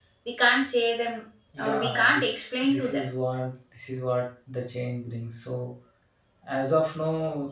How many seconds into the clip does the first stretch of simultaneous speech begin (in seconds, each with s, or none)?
1.6 s